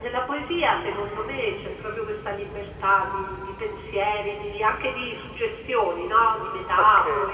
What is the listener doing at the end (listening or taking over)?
taking over